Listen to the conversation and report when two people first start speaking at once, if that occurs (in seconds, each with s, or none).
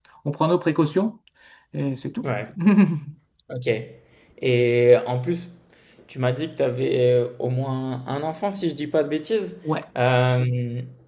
none